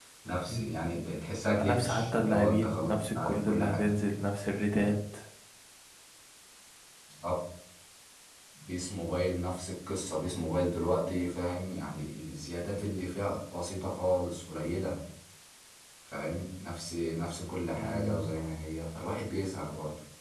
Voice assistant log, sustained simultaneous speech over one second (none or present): present